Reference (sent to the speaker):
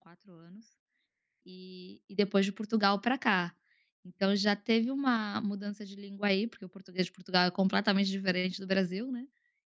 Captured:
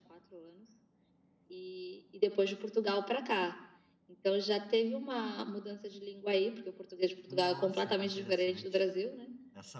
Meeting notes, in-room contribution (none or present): present